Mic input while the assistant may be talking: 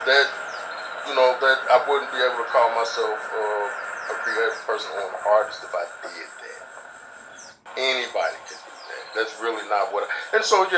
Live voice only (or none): none